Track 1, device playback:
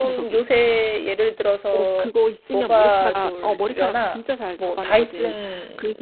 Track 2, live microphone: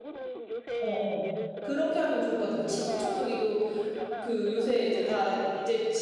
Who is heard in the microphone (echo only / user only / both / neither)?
both